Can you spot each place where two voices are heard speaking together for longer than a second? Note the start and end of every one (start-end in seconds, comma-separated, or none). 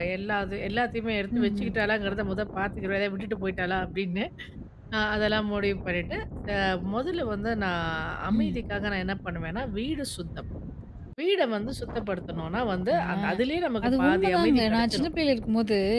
13.9-15.1